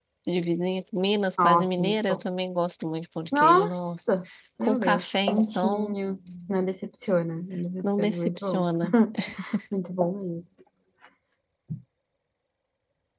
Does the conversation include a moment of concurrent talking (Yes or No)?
Yes